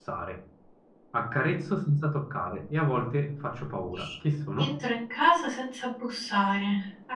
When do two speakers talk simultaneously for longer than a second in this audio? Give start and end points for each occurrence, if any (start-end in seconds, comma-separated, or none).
none